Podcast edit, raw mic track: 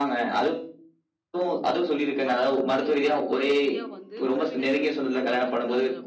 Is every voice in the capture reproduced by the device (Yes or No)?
No